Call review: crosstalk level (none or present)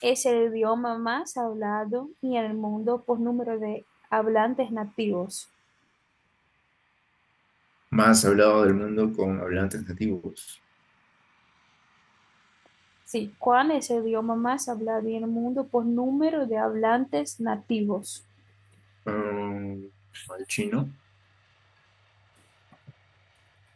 none